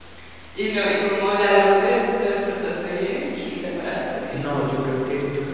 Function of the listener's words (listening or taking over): taking over